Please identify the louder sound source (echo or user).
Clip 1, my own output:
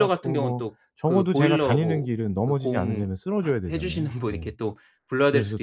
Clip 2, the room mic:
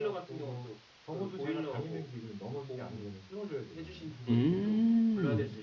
user